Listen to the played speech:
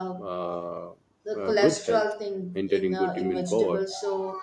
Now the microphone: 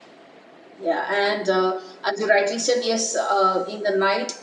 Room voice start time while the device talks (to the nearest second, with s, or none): 1 s